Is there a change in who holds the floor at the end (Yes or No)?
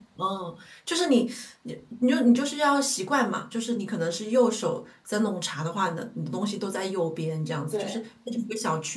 No